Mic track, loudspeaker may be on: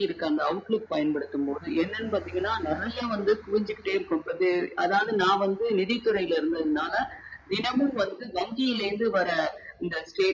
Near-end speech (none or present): present